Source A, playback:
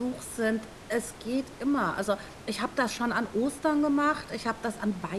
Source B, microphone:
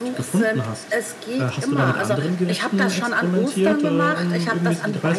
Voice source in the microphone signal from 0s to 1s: both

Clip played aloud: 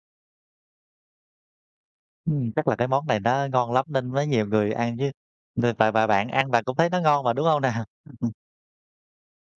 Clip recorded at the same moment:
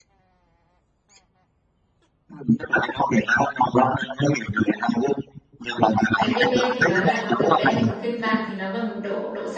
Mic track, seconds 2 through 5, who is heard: echo only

